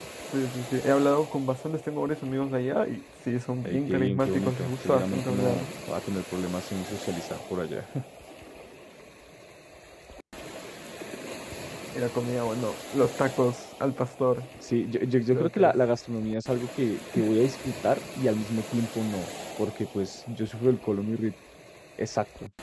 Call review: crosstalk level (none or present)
present